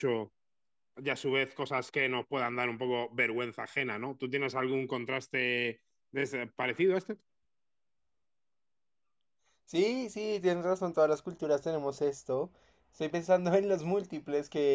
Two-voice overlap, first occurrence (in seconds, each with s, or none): none